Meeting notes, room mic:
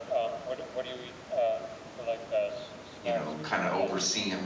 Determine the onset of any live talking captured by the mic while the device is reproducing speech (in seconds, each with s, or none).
3.0 s